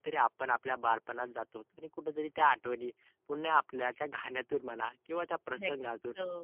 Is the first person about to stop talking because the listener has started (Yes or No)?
No